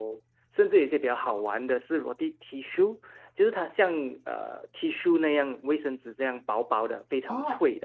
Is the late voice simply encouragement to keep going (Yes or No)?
No